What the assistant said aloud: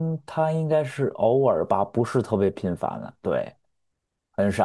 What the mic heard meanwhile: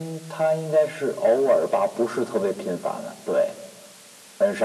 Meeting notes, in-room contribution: none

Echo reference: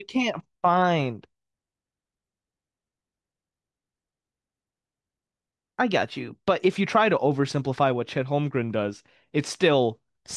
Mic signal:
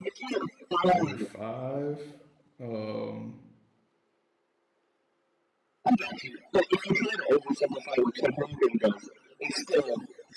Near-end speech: present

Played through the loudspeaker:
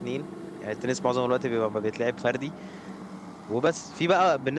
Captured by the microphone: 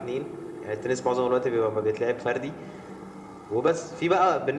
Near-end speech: none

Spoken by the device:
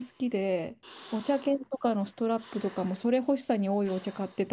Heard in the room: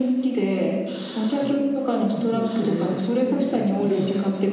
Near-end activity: present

